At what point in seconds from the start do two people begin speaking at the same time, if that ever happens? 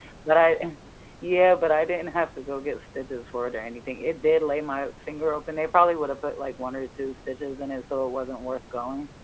none

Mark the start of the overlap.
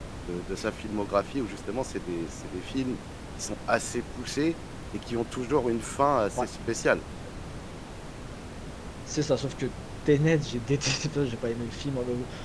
none

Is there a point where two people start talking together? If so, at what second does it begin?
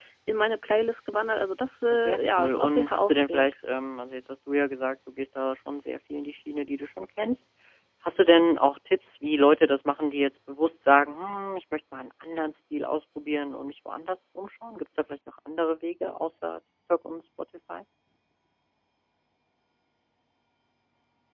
2 s

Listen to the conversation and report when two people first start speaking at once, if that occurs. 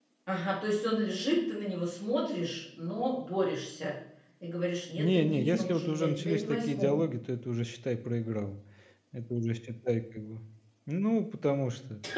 5 s

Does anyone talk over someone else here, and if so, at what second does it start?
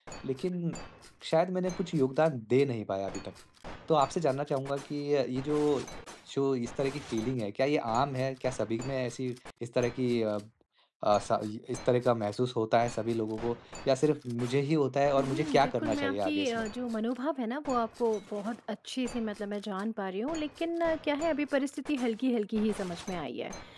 15 s

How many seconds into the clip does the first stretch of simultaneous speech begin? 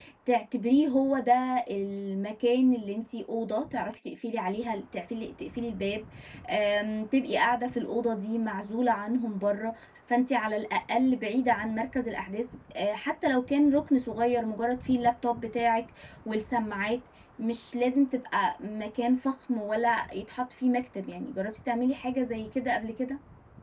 none

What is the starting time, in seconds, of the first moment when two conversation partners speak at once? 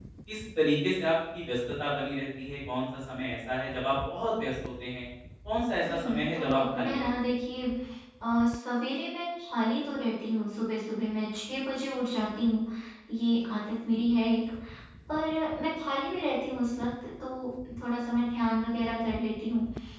6 s

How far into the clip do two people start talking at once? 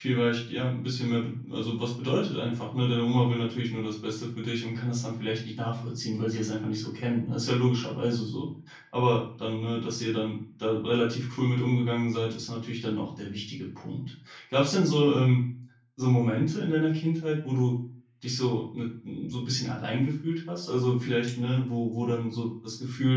none

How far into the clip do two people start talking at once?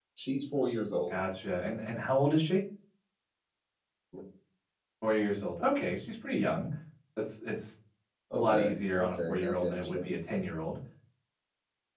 8 s

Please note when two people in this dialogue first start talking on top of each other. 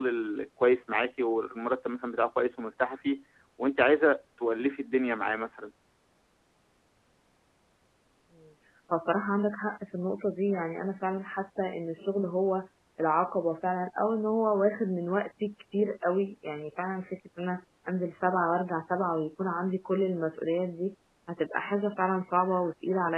none

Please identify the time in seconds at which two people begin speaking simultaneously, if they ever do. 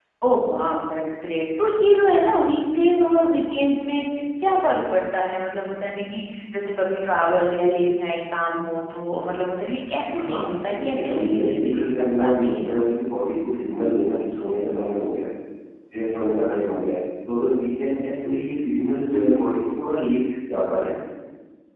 10 s

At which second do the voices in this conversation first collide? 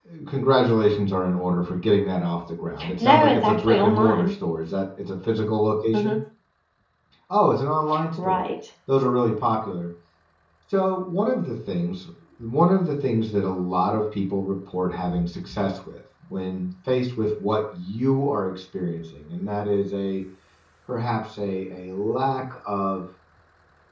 3 s

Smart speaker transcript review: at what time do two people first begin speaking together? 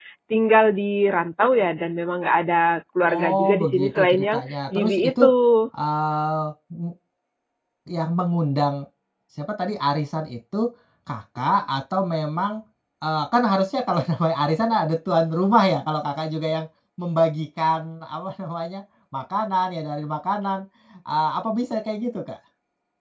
3 s

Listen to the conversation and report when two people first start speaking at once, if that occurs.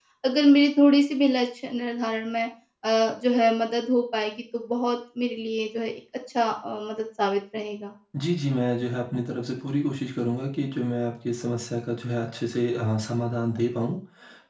none

